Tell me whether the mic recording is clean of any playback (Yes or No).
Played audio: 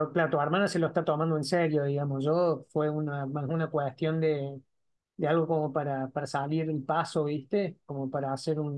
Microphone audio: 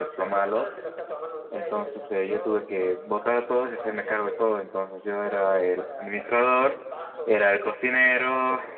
No